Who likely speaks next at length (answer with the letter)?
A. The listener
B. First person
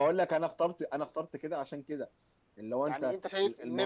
A